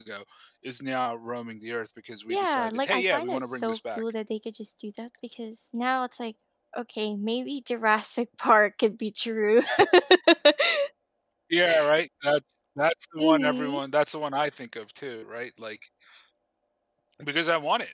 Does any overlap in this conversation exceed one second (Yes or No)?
Yes